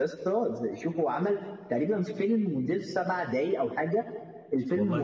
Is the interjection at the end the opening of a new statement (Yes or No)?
No